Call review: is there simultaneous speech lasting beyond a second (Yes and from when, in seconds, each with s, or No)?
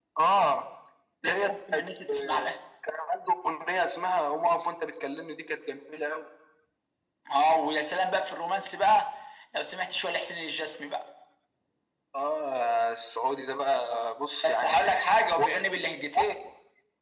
Yes, from 1.2 s